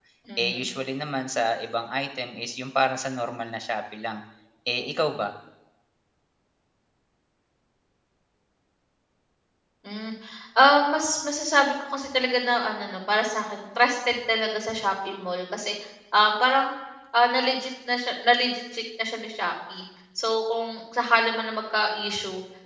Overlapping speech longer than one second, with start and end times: none

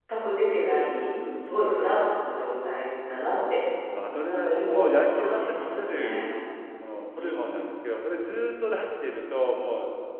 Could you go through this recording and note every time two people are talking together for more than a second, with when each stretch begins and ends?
4.3-6.2

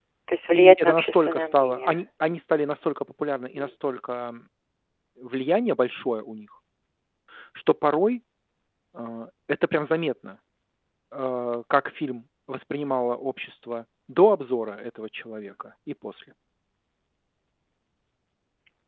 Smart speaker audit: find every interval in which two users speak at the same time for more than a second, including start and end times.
0.5-1.9

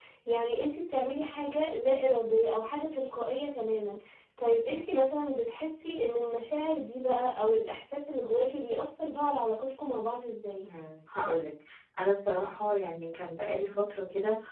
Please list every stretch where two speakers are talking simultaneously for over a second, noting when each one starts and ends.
none

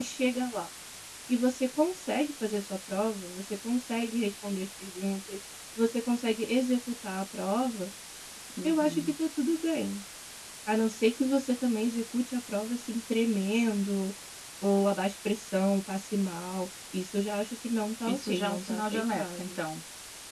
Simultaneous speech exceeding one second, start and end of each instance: 18.1-19.6

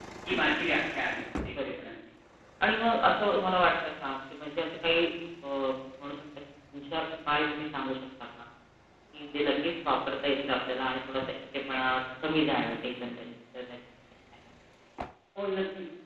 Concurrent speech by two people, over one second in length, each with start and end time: none

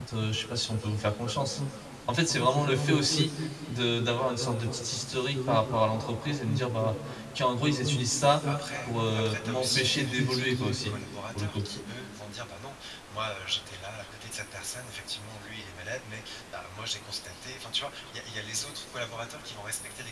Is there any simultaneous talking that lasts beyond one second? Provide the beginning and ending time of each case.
8.9-10.9

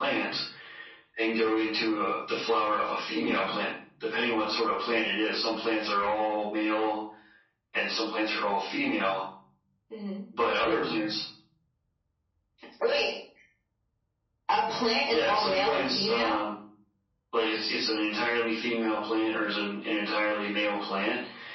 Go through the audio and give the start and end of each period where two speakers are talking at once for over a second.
15.1-16.4

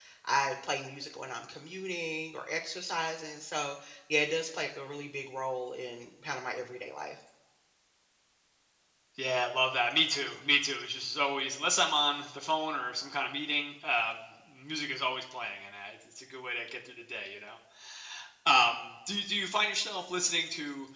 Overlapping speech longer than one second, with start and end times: none

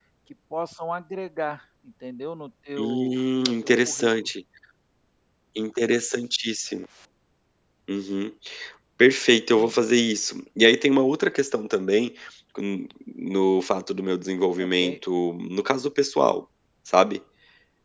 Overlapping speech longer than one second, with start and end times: 2.8-4.1

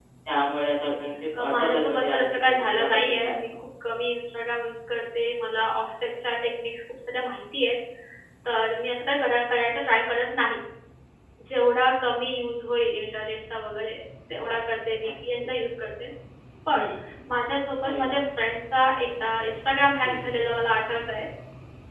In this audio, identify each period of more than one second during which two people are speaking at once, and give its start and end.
1.4-3.5

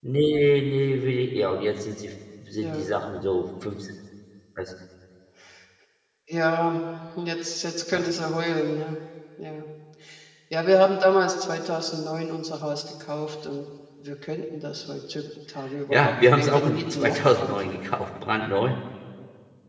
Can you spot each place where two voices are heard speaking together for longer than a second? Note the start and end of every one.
15.9-17.7

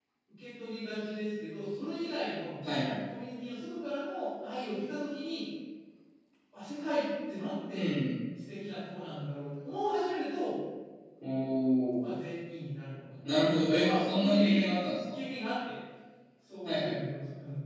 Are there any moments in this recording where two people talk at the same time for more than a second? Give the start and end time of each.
13.2-14.6

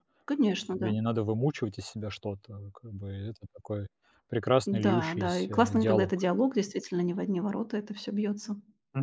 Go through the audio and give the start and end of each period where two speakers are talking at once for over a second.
4.8-6.1

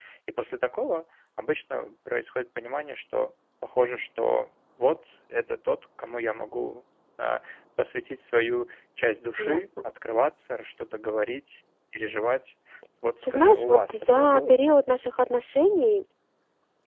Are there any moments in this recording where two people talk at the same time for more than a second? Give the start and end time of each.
13.2-14.6

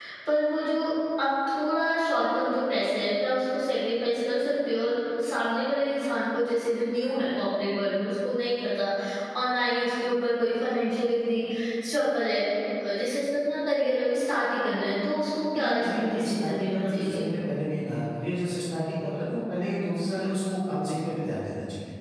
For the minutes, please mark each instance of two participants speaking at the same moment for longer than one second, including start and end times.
15.6-17.2

